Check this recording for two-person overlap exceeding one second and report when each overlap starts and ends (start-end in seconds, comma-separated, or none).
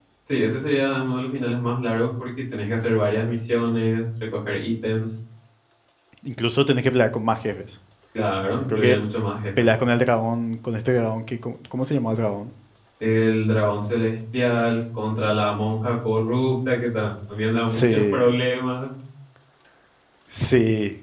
none